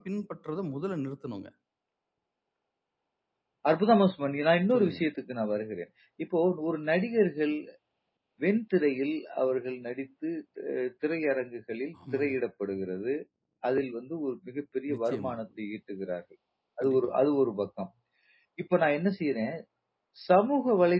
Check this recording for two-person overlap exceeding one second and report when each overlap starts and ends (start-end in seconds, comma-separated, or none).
none